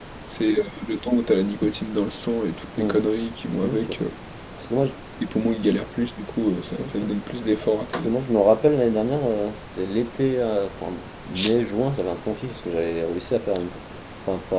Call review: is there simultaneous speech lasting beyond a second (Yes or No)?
No